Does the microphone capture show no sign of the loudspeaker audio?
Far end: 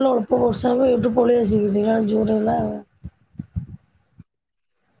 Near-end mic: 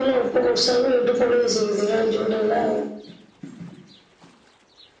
No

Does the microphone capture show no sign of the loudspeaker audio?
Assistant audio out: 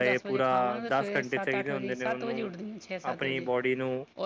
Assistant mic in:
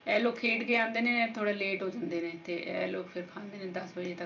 Yes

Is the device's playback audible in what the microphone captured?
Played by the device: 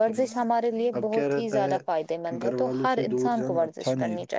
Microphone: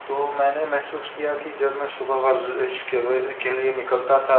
No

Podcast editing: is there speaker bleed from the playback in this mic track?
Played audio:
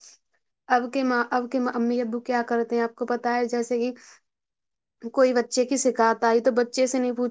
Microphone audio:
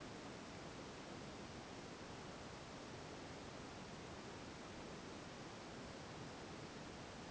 No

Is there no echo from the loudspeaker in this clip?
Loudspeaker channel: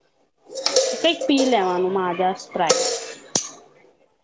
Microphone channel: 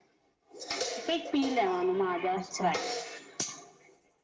No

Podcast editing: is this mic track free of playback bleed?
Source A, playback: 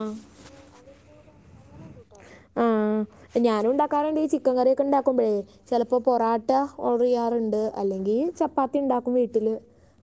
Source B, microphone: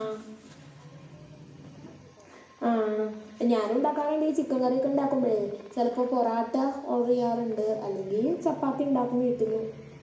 No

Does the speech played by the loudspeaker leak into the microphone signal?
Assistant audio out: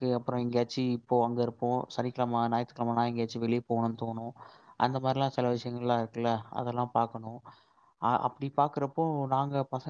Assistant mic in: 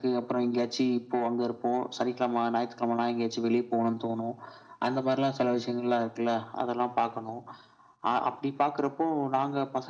Yes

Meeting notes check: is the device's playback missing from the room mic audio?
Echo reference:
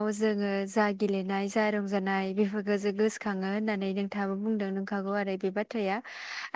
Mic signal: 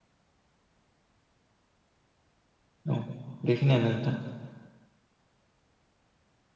Yes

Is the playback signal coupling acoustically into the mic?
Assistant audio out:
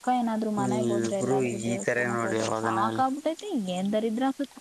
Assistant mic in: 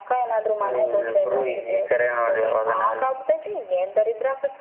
Yes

